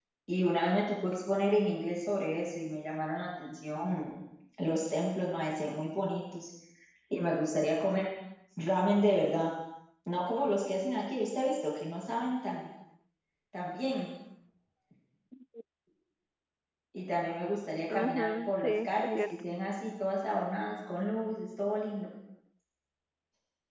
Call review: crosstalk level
present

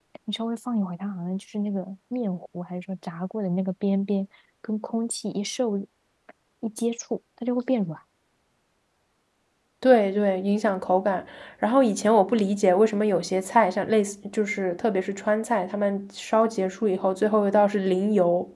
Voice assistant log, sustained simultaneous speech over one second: none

